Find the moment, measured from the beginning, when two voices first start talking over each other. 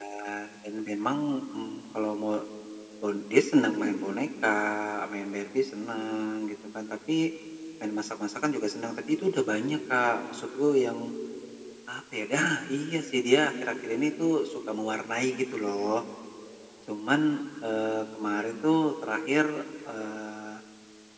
none

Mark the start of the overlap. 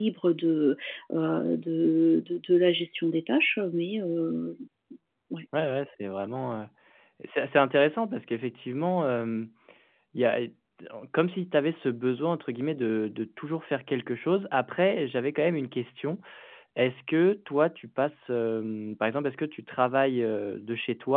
none

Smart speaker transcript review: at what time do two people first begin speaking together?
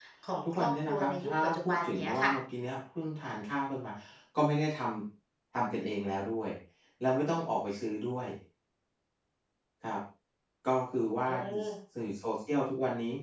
0.5 s

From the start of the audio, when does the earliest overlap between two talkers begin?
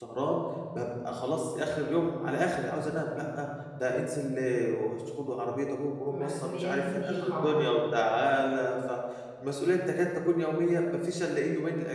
6.1 s

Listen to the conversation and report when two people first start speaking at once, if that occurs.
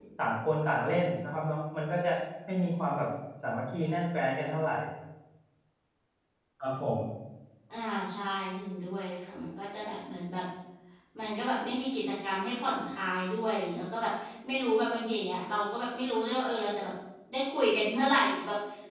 none

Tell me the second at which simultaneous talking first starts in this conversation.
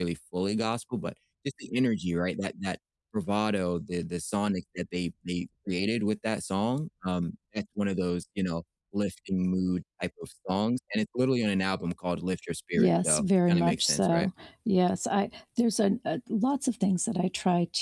12.8 s

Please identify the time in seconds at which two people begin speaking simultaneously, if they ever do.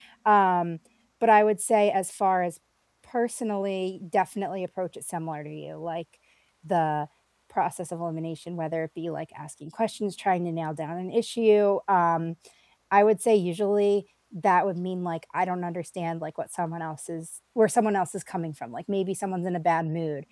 none

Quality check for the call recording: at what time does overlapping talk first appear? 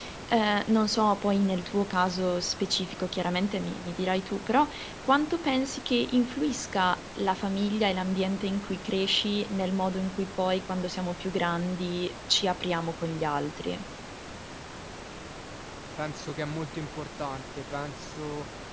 none

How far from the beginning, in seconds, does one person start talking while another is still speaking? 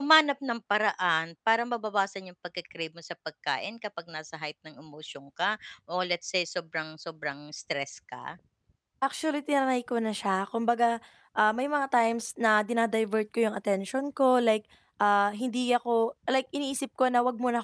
none

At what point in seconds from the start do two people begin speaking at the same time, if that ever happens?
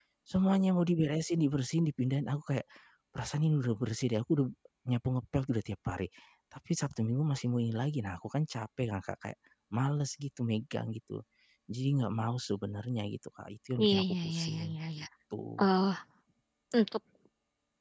13.8 s

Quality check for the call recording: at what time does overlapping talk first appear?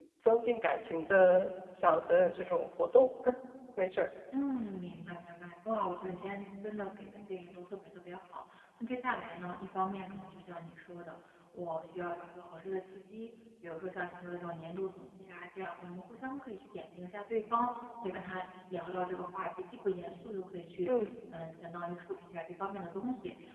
none

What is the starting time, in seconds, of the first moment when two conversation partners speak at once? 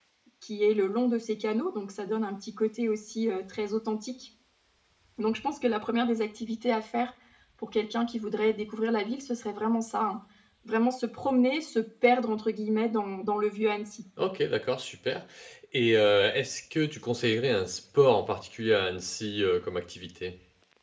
none

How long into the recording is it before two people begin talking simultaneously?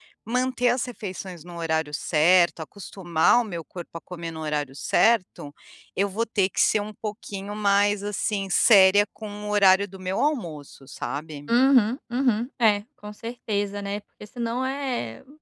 none

